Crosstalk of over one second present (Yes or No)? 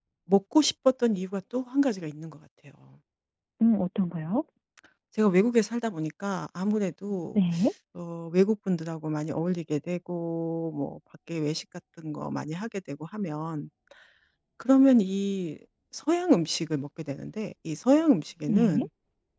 No